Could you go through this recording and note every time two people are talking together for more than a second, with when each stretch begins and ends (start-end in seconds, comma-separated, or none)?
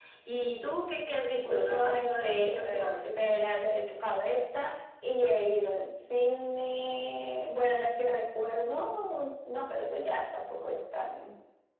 1.4-3.0